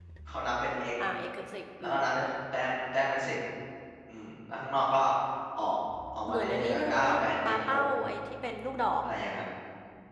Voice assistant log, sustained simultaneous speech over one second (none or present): present